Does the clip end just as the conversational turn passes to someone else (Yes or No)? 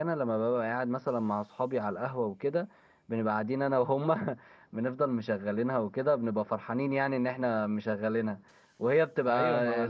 Yes